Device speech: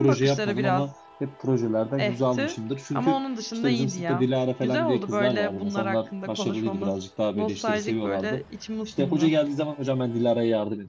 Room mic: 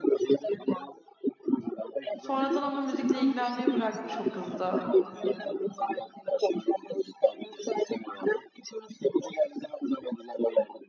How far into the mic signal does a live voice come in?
2 s

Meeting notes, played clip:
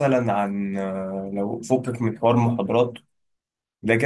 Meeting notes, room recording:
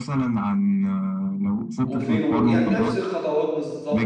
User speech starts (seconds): 2 s

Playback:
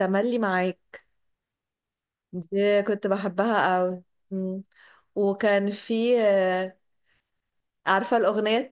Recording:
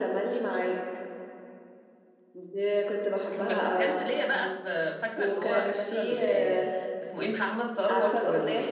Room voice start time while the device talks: 3 s

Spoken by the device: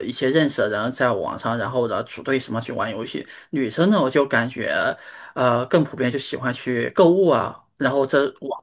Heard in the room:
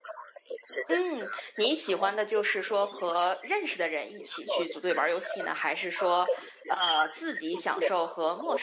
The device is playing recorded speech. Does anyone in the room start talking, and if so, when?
1 s

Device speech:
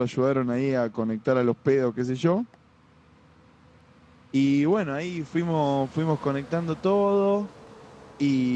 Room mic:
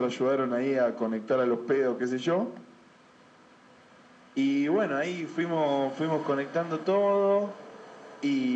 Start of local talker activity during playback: none

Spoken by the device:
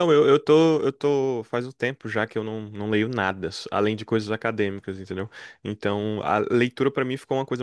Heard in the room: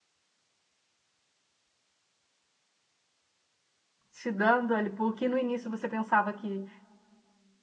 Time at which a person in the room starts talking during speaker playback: 4 s

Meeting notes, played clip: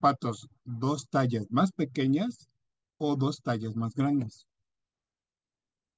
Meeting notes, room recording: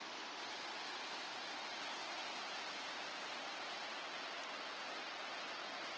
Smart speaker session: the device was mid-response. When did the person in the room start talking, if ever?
none

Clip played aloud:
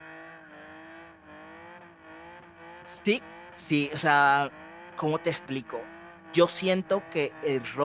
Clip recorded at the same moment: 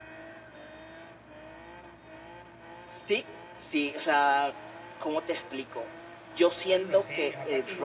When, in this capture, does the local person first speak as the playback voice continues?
7 s

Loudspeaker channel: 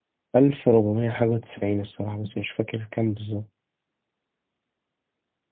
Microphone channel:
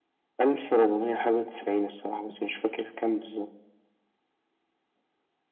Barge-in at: none

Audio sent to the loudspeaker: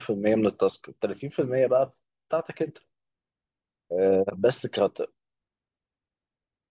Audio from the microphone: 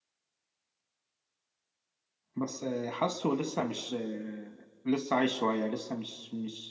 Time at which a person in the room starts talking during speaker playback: 2 s

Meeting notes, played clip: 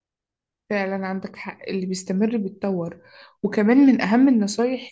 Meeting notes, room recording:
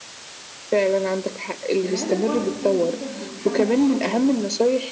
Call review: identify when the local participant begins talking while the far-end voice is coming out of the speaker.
2 s

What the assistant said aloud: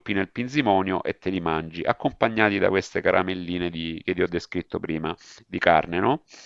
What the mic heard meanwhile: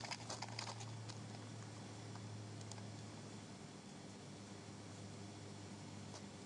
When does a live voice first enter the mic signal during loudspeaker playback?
none

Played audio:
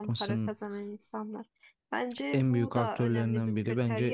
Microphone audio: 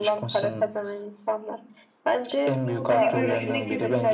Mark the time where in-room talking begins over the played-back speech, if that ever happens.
3 s

